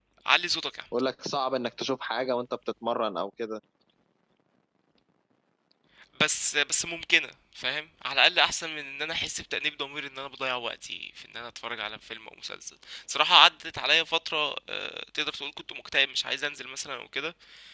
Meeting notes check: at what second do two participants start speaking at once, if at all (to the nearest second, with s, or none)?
none